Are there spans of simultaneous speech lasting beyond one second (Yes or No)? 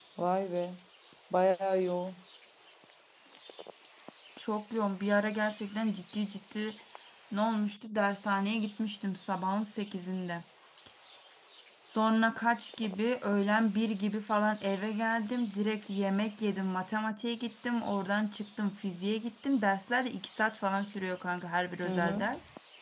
No